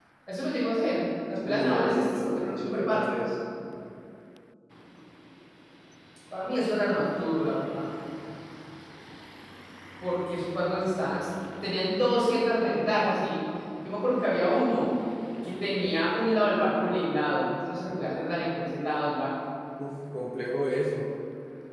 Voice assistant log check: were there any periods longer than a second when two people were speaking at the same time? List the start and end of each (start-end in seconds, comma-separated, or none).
1.5-3.3